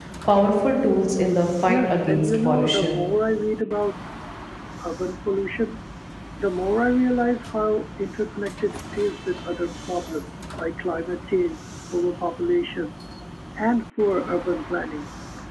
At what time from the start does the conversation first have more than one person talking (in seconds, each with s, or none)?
1.7 s